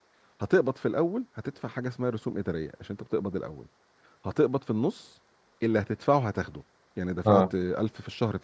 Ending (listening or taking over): listening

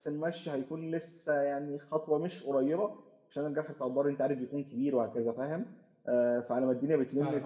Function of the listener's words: taking over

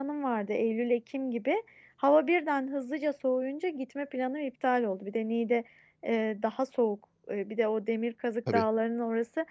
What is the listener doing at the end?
listening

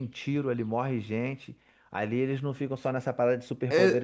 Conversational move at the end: taking over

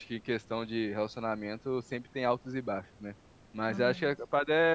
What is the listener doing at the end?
listening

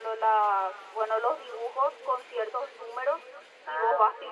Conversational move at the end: listening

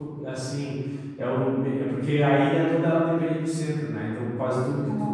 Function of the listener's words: listening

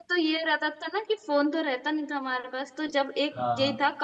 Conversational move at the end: listening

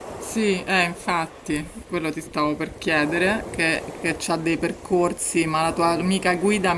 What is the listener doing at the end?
listening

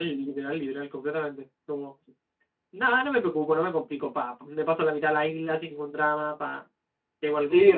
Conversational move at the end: taking over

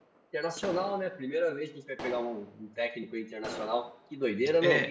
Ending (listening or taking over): taking over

